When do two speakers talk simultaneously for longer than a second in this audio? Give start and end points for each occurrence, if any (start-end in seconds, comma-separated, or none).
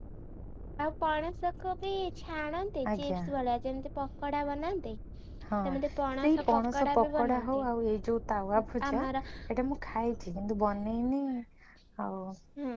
6.2-7.7